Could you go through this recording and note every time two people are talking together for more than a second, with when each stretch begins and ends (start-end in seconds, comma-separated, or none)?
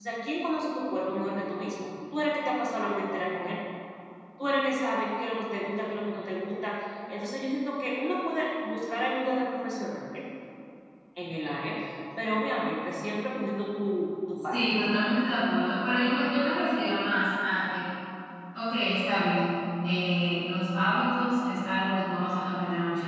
none